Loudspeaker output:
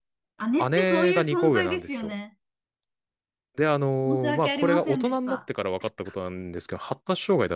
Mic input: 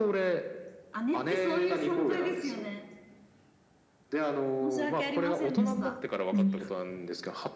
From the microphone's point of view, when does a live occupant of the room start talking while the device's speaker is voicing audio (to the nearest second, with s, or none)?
6 s